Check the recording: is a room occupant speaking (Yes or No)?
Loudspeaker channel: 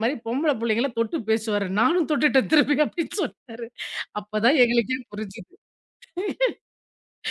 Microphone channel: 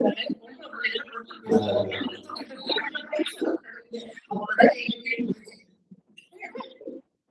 Yes